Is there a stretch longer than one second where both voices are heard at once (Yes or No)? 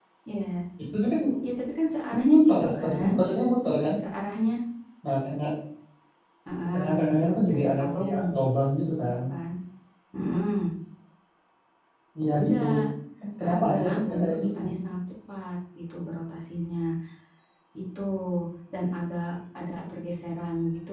Yes